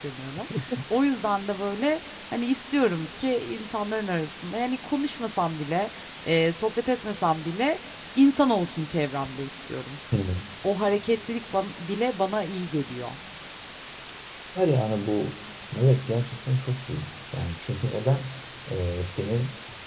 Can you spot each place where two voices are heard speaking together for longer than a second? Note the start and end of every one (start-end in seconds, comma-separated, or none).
none